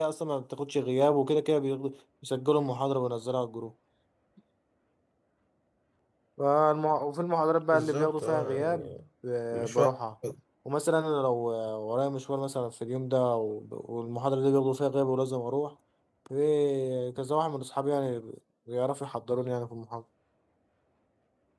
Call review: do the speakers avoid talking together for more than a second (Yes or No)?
No